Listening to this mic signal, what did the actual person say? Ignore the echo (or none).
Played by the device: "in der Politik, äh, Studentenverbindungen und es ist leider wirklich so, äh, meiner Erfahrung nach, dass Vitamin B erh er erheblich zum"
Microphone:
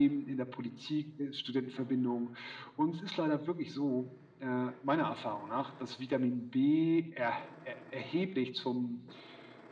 none